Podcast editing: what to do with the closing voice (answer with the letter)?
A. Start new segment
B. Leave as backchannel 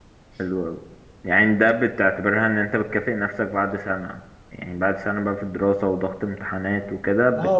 A